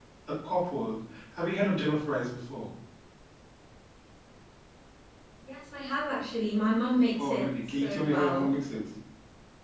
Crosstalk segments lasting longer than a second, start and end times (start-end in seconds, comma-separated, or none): 7.2-8.5